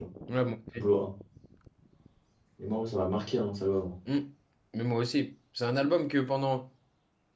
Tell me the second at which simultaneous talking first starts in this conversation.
none

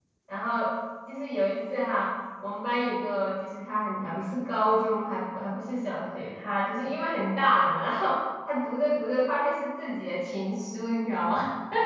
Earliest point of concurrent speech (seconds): none

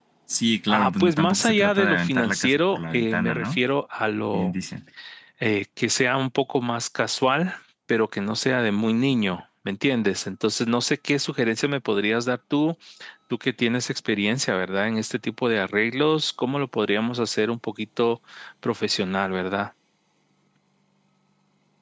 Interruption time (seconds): 0.7 s

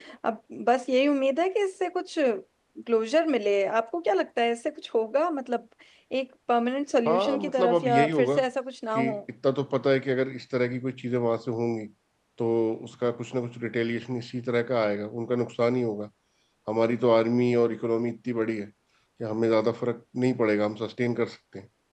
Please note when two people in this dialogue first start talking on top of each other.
7.1 s

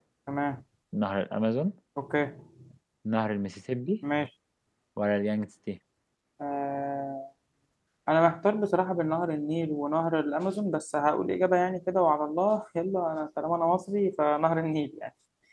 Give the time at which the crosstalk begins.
none

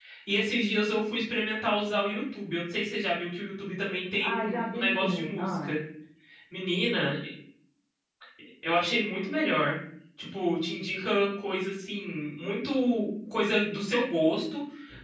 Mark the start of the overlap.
4.2 s

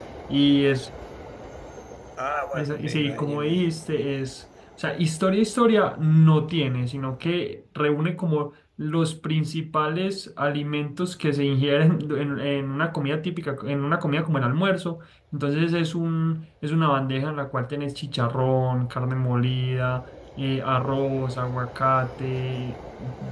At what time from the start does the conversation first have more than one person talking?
2.5 s

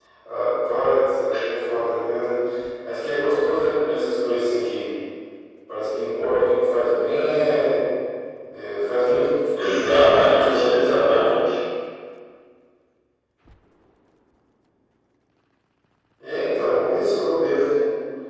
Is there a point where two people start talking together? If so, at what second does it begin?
9.7 s

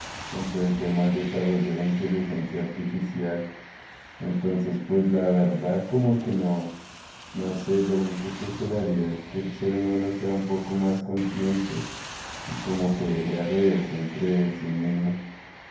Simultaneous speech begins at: none

